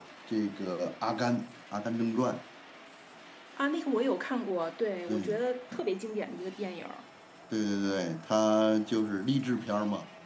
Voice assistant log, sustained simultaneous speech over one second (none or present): none